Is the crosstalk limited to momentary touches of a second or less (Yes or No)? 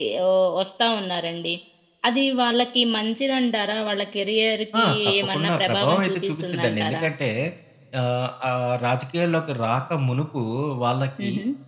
No